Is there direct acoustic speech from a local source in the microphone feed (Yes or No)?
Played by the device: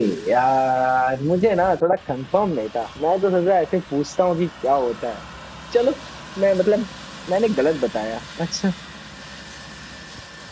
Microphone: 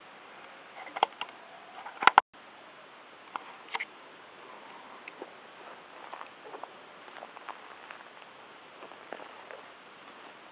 No